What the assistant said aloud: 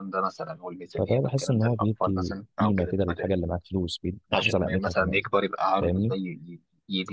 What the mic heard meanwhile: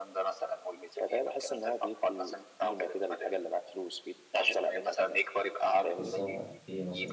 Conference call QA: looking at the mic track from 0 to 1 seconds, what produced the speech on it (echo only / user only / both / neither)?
echo only